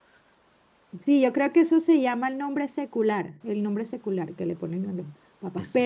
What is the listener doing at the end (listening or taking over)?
listening